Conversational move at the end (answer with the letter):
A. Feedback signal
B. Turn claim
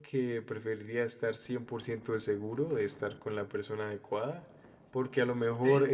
A